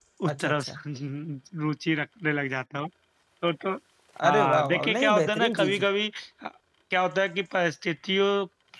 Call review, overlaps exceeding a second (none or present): present